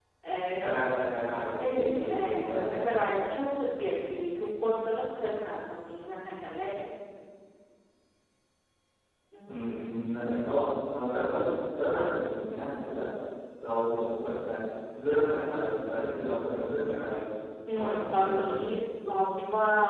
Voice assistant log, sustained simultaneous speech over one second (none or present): present